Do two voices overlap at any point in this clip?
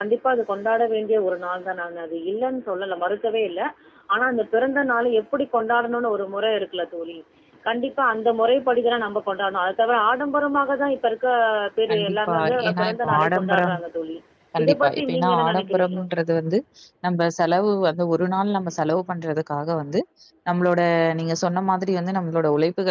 Yes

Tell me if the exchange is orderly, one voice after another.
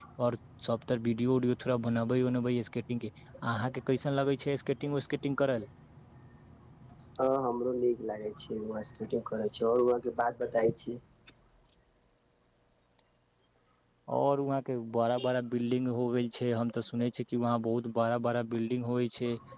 Yes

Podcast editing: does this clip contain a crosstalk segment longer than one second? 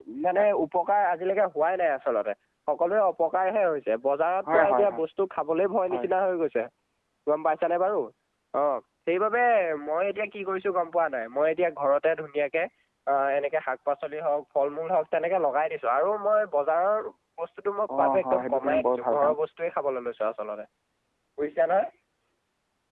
Yes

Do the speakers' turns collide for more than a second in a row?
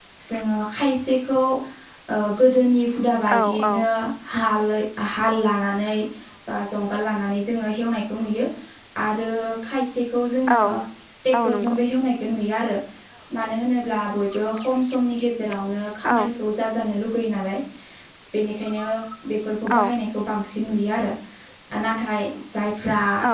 No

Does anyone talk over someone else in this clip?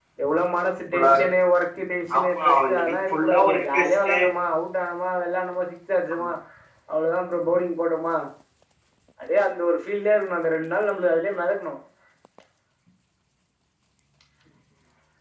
Yes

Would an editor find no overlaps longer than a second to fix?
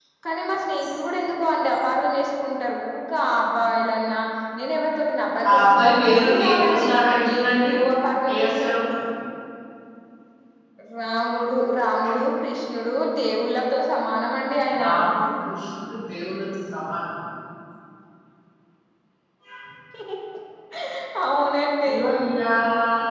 No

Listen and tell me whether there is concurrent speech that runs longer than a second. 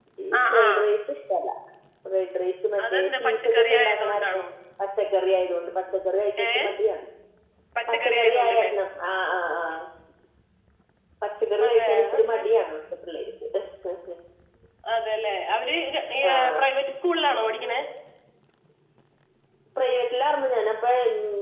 Yes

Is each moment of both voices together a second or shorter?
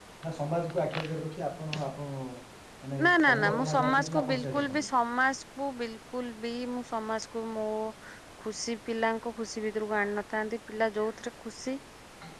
No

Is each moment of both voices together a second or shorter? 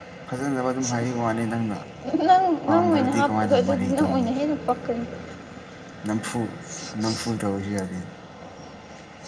No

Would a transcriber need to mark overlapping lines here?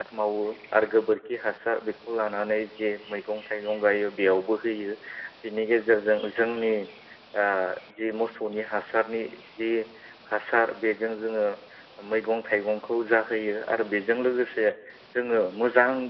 No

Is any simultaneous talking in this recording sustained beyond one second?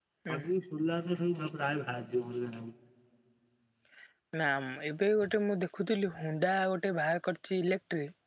No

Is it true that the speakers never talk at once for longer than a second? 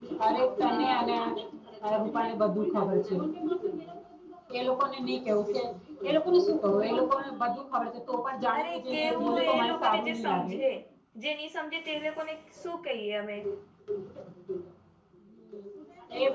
No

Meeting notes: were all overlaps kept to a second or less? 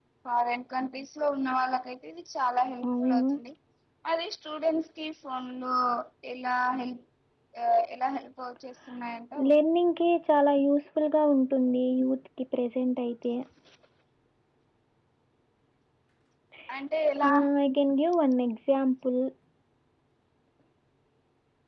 Yes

